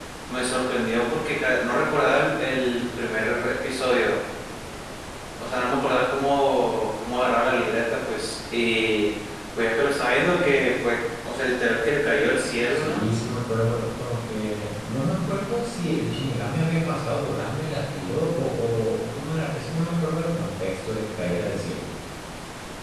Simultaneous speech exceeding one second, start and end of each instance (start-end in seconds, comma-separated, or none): none